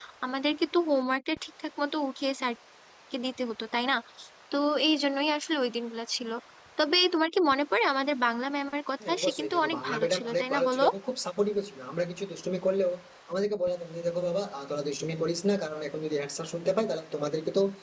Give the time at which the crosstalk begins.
9 s

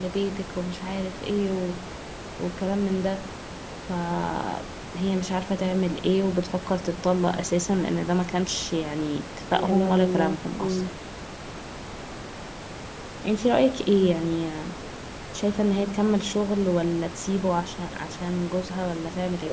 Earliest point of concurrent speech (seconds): 10 s

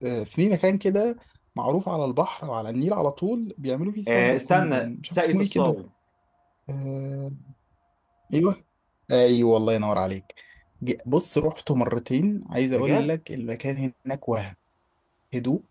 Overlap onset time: 4 s

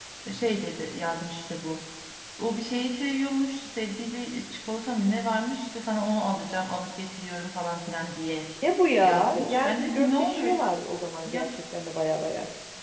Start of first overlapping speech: 9 s

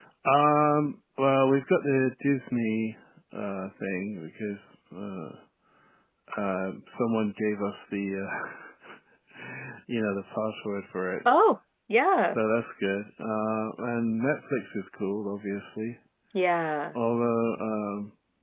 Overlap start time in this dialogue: none

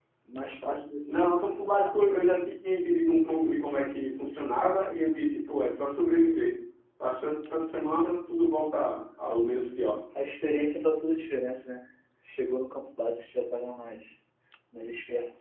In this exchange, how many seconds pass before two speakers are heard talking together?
none

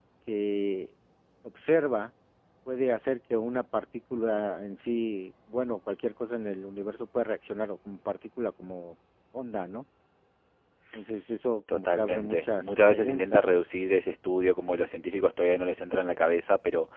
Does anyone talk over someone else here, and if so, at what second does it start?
12 s

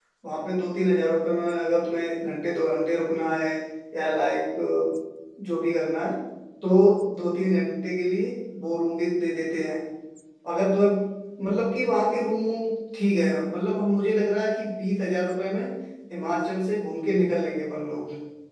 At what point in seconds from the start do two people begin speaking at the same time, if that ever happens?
none

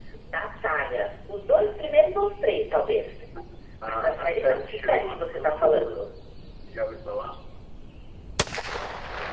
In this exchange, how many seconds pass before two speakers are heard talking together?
4 s

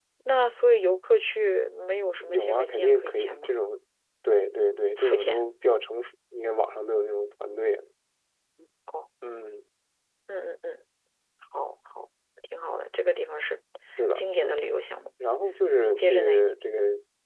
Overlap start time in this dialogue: 2 s

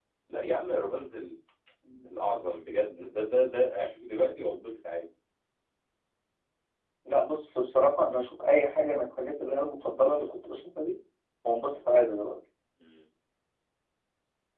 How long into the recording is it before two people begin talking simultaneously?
none

